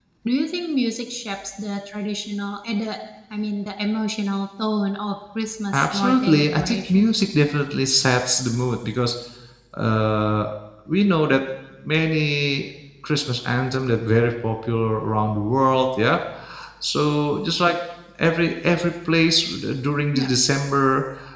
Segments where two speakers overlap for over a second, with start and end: 5.7-7.1

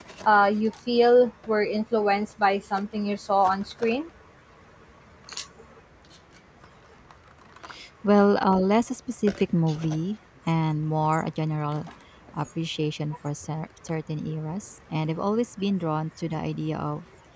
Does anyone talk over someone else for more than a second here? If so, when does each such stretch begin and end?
none

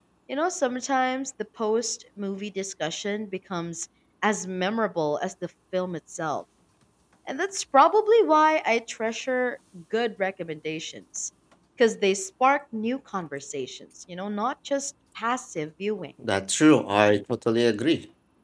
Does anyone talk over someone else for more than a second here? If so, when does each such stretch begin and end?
none

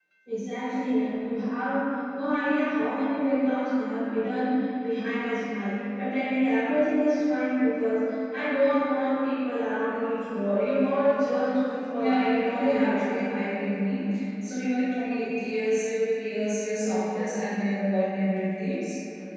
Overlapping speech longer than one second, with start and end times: 12.0-13.2

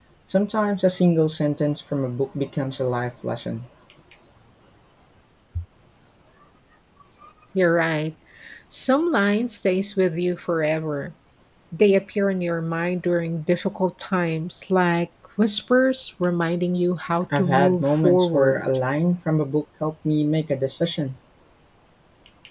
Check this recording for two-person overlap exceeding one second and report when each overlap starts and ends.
17.4-18.6

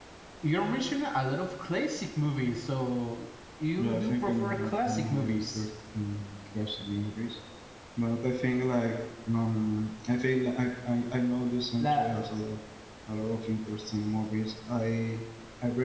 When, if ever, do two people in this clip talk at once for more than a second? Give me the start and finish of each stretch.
3.8-5.6

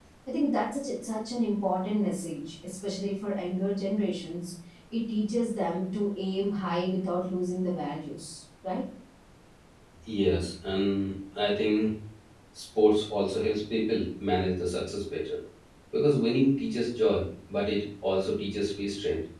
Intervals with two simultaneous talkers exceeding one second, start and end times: none

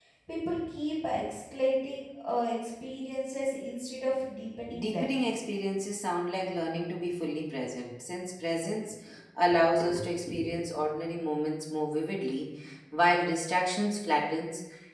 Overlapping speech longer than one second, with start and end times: none

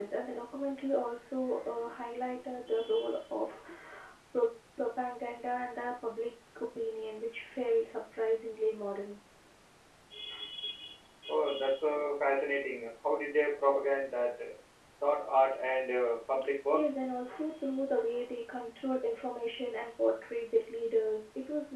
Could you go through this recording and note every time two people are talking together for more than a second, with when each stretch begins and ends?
none

